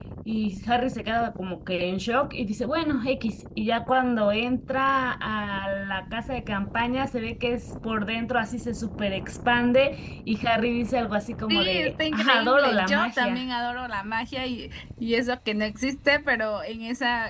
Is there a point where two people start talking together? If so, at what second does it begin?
11.5 s

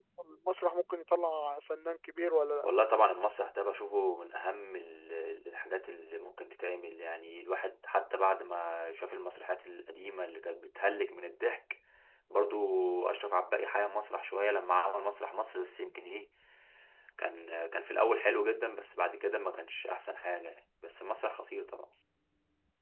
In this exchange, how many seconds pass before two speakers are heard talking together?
none

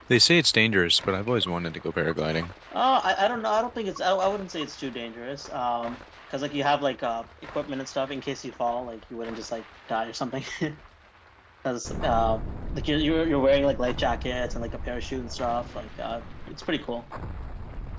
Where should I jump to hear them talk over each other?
none

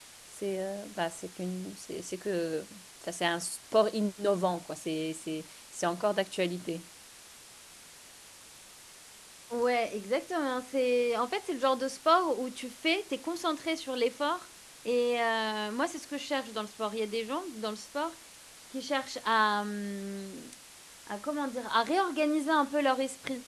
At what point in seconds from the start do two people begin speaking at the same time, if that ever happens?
none

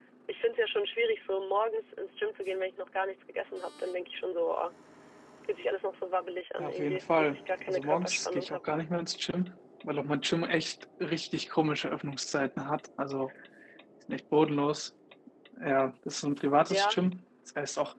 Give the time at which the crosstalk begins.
6.6 s

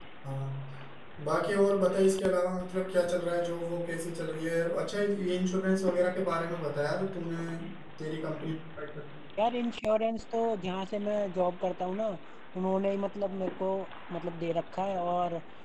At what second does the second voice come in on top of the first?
none

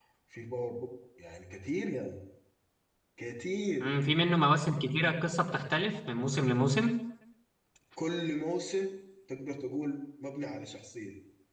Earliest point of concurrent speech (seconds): none

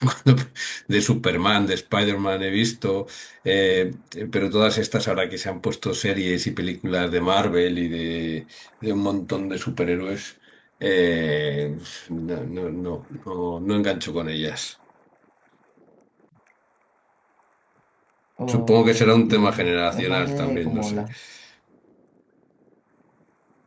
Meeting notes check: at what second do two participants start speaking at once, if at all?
18.5 s

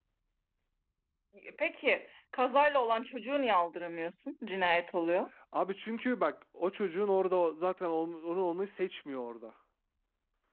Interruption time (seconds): none

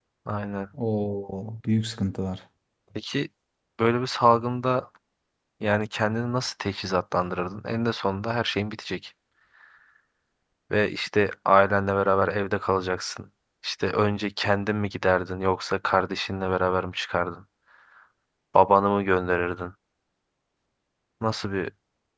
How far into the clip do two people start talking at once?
none

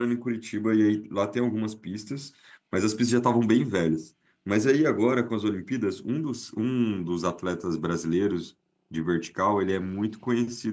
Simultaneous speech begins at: none

